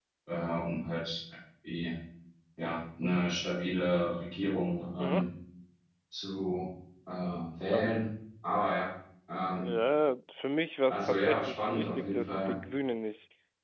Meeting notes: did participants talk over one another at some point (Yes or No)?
Yes